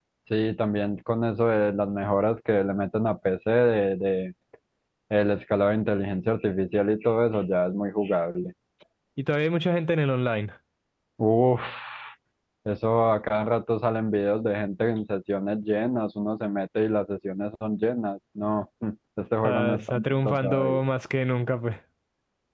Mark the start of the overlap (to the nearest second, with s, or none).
19 s